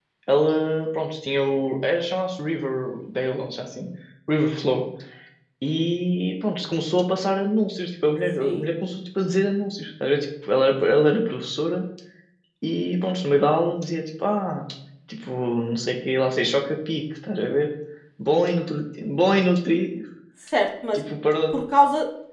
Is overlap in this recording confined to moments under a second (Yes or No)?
Yes